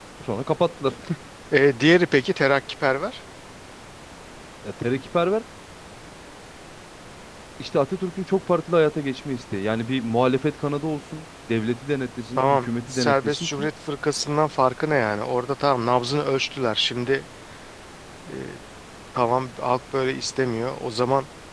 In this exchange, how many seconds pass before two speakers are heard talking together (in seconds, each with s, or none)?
12.4 s